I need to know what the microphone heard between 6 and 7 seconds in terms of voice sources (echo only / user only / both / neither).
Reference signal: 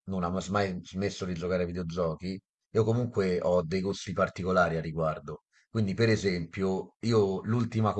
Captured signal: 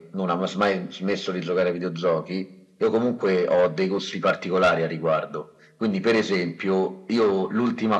echo only